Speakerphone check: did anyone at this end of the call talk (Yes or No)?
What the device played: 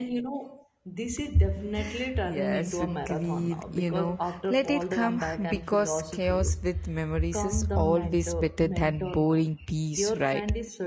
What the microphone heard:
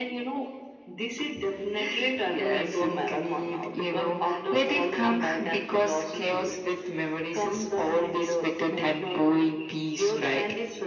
No